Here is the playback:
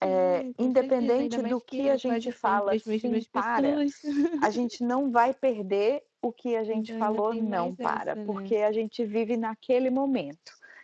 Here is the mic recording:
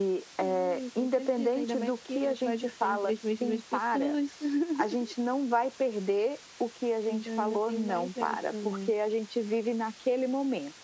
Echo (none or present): present